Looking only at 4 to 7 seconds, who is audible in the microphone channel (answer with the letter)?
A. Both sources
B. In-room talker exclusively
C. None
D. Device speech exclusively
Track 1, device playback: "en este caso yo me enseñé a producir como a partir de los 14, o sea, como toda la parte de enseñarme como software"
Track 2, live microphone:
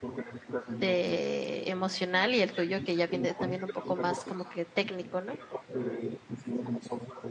A